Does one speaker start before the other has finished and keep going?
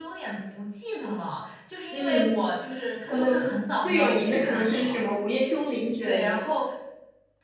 Yes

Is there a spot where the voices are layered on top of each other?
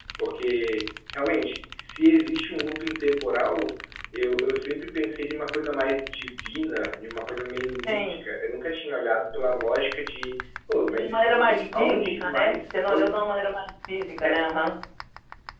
Yes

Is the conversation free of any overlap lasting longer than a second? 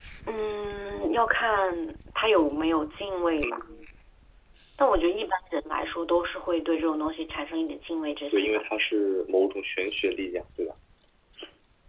Yes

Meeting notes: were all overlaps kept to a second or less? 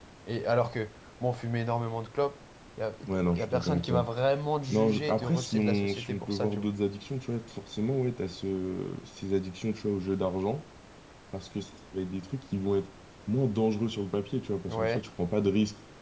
No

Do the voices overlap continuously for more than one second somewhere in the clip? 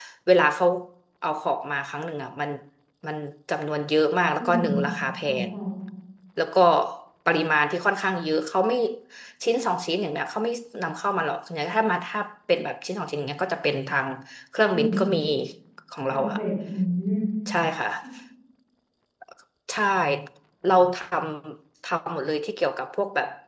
No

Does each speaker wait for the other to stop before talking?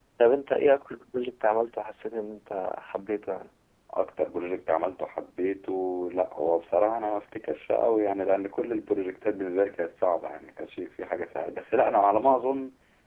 Yes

